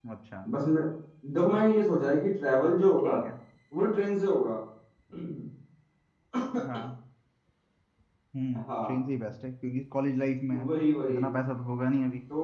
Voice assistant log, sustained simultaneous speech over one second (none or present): none